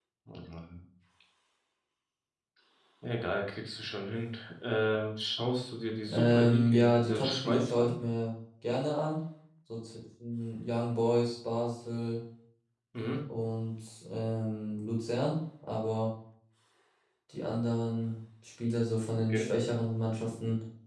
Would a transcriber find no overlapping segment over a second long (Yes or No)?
No